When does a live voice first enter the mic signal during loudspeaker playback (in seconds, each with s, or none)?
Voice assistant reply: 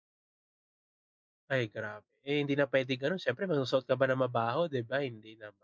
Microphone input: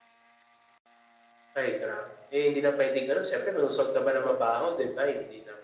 none